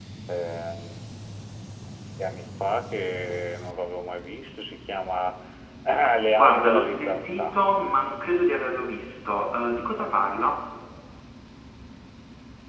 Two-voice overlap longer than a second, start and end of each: 6.3-7.6

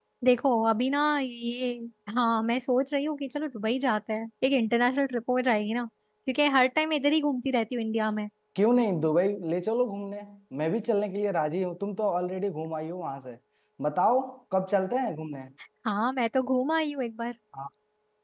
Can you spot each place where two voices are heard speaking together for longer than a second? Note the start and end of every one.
none

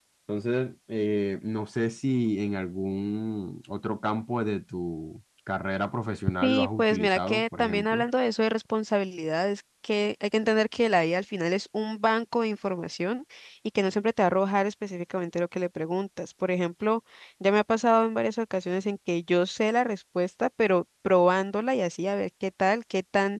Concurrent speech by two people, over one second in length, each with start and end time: 6.4-8.0

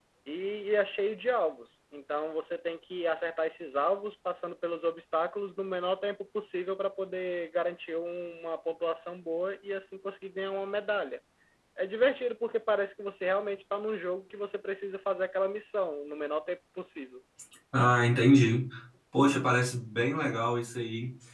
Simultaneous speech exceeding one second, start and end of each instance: none

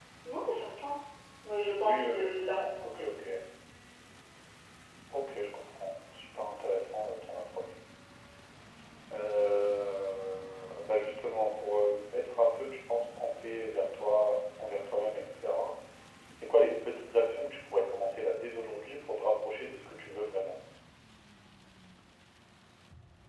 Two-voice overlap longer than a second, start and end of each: 1.8-3.0

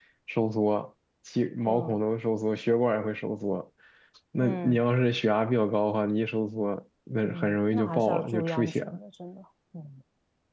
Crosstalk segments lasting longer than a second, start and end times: 7.2-9.0

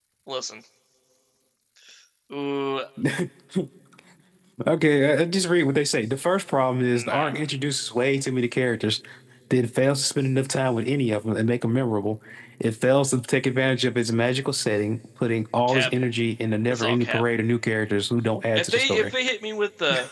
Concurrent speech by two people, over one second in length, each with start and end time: none

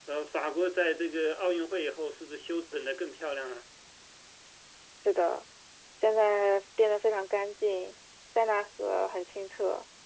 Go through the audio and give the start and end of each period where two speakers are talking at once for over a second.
none

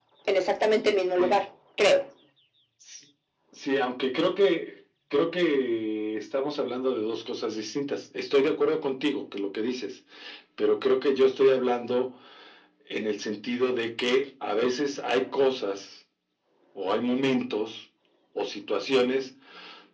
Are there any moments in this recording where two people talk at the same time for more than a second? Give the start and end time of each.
none

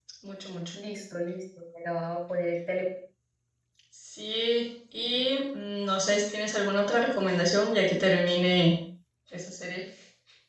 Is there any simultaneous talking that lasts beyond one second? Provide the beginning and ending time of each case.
none

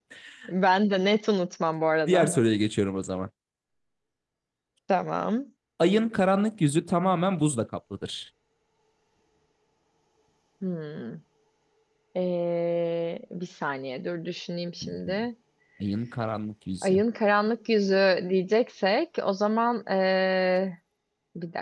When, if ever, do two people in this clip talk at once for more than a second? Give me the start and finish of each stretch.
none

